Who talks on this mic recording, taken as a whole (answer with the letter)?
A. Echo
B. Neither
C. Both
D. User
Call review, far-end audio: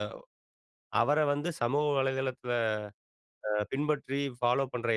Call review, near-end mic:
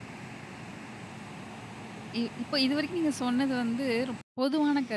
D